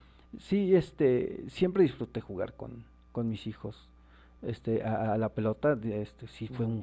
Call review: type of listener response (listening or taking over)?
listening